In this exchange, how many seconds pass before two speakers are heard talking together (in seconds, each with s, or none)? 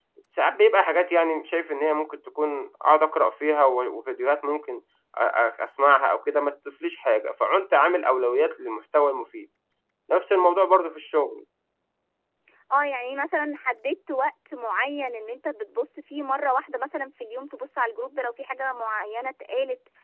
none